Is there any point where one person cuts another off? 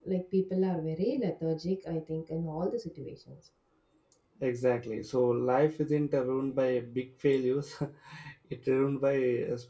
No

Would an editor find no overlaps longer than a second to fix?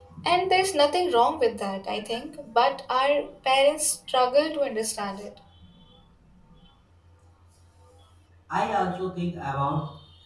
Yes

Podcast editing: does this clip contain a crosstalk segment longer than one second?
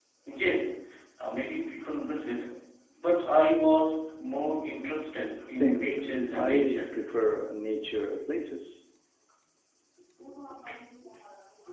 Yes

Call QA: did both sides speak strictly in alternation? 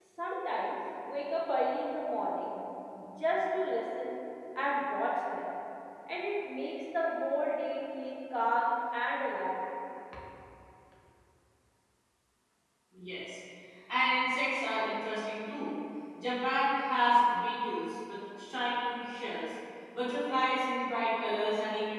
Yes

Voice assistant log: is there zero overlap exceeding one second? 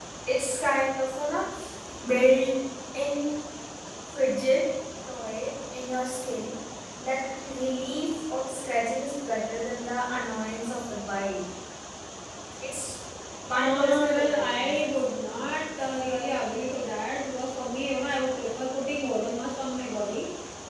No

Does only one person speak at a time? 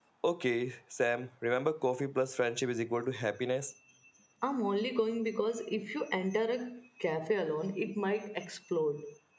Yes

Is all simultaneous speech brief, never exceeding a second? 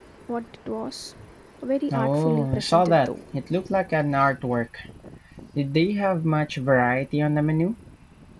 No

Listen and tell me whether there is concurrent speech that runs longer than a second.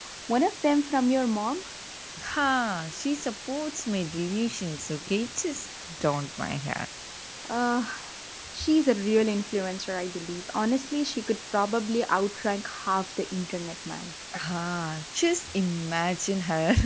No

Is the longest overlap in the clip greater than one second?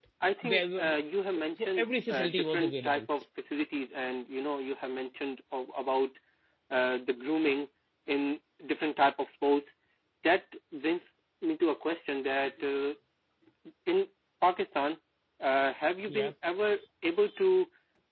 Yes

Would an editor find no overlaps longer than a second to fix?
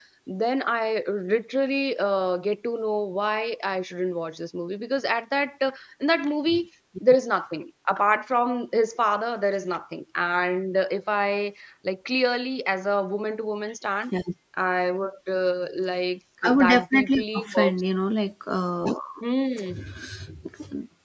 No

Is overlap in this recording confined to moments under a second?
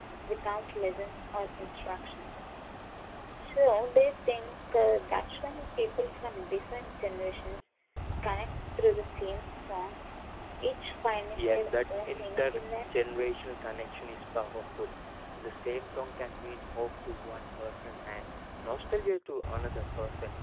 No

